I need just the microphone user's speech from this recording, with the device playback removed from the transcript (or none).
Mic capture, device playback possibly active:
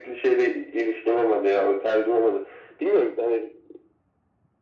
none